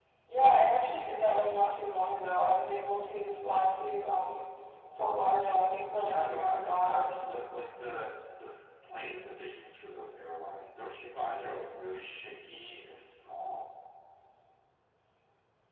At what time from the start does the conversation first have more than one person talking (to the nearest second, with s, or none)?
6 s